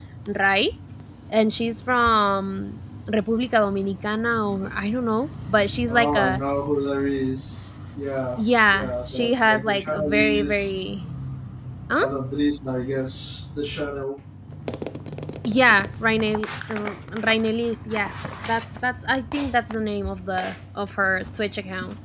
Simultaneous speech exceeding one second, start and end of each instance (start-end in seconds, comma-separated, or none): 8.4-10.7